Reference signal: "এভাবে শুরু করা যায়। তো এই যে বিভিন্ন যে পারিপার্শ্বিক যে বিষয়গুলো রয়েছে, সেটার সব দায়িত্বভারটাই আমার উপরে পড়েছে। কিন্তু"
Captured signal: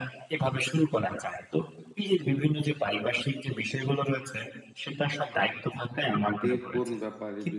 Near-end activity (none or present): present